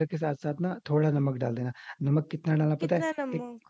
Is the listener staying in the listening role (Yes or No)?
Yes